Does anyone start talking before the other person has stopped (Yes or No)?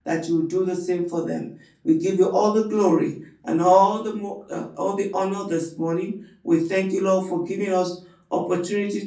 No